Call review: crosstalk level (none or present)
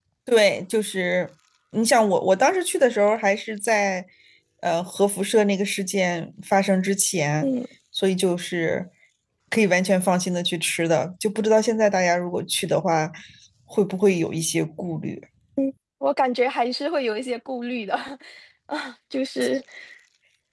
none